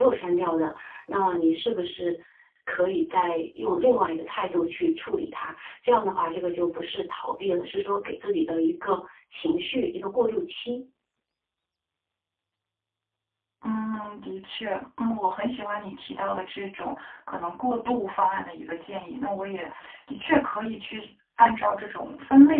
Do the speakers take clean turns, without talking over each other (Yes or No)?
Yes